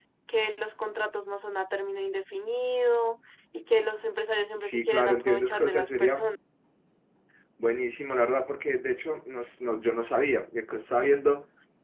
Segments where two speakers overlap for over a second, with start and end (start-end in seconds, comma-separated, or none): 4.6-6.3